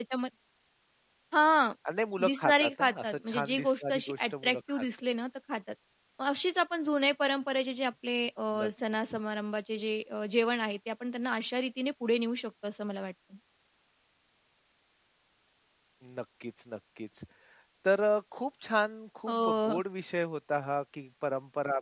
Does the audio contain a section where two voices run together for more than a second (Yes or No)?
Yes